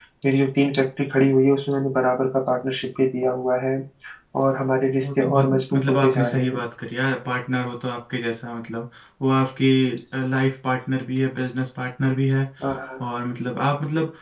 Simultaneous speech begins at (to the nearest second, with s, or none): 5 s